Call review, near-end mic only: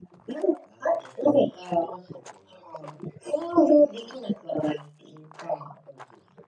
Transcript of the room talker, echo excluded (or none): none